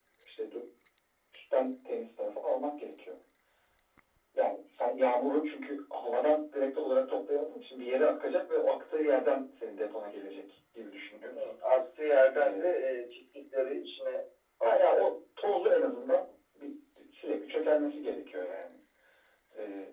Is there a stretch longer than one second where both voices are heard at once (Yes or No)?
No